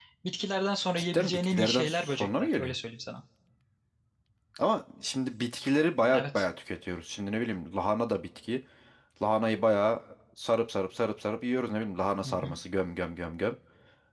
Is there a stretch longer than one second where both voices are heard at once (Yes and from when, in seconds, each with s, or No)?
Yes, from 1.0 s